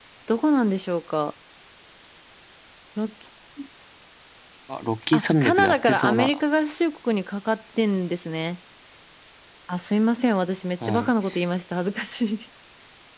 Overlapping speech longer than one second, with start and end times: 5.1-6.4

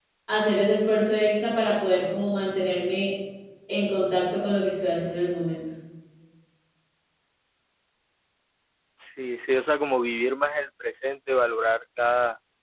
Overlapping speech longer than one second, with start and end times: none

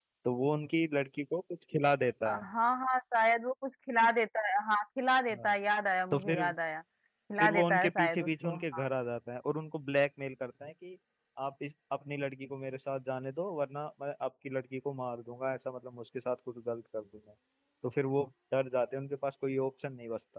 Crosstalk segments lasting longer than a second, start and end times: 7.4-8.8

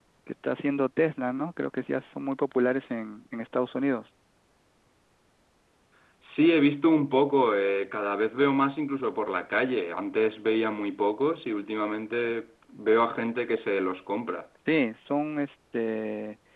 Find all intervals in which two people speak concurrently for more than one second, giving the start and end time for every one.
none

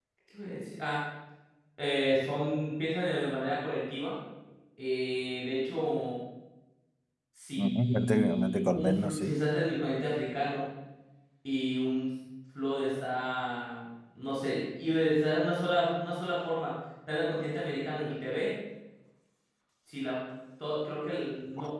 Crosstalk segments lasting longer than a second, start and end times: 7.6-9.3

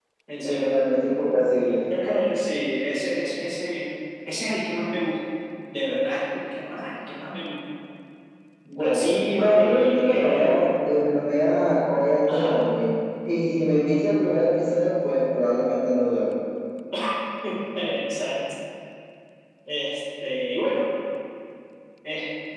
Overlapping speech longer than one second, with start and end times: 8.8-10.7

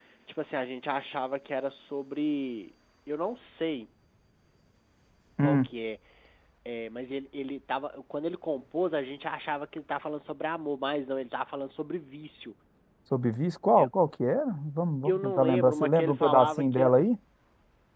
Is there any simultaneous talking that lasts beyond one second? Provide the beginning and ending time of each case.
15.1-16.9

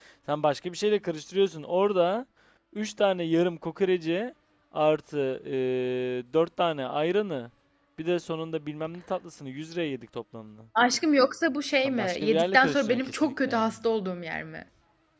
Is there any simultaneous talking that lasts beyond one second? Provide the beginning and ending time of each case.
11.8-13.7

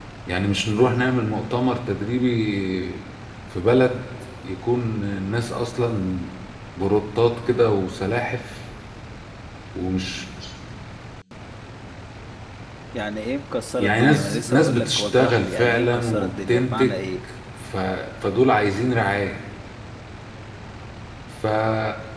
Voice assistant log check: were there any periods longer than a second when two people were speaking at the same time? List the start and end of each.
13.8-17.0

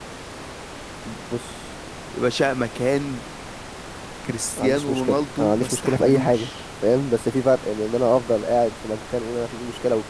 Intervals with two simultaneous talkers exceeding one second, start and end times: 4.6-6.5

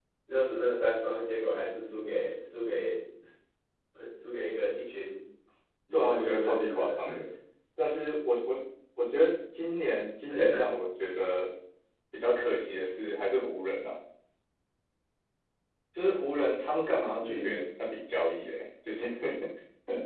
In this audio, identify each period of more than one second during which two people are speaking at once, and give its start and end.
5.9-7.2

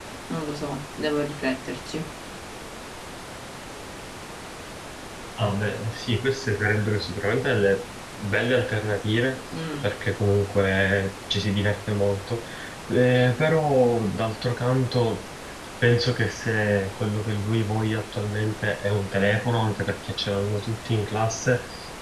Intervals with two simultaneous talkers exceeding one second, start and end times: none

